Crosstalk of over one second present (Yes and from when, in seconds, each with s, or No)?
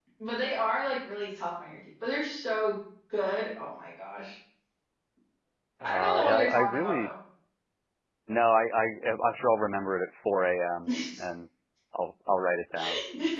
Yes, from 5.8 s